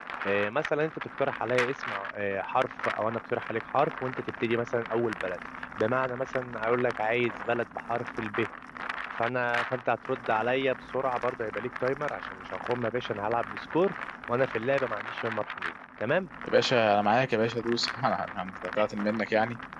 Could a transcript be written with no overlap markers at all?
Yes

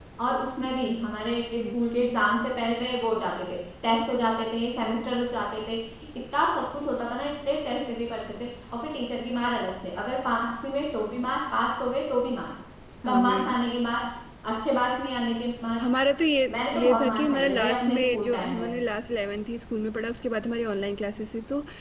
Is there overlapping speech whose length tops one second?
Yes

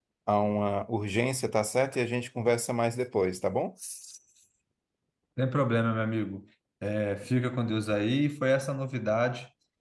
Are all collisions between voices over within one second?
Yes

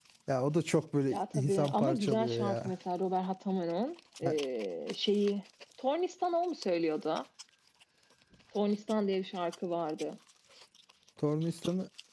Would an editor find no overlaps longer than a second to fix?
No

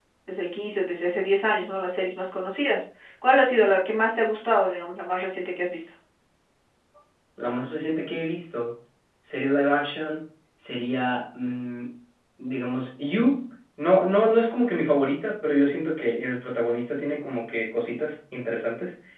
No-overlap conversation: Yes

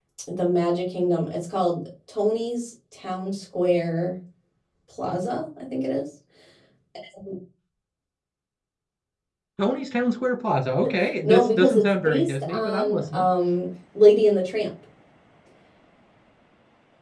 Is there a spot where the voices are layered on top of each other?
Yes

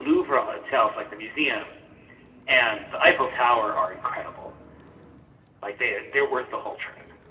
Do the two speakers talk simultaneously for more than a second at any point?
No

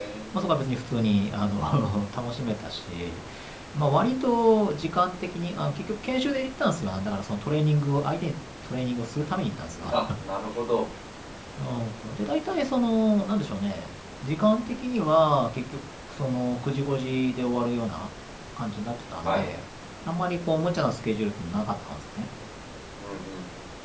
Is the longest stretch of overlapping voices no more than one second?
Yes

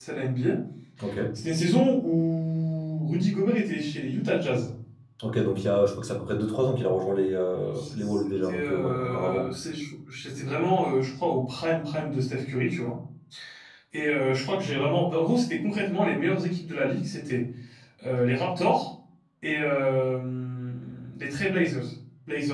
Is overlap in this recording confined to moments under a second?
No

